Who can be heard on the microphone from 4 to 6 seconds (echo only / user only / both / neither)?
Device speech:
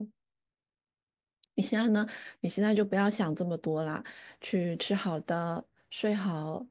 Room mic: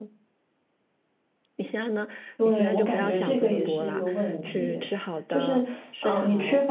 both